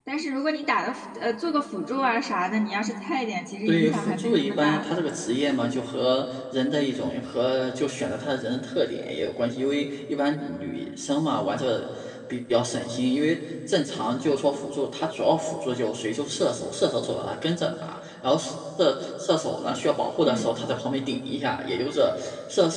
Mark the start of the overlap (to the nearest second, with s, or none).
4 s